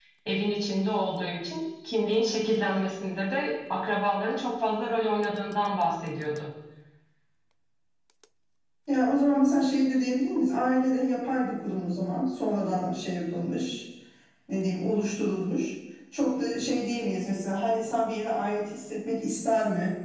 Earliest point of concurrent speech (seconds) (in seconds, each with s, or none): none